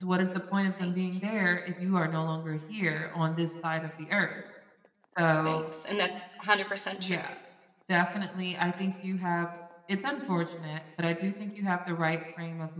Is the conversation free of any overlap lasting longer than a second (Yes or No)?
Yes